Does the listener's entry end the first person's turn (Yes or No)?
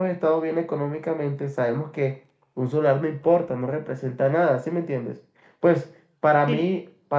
No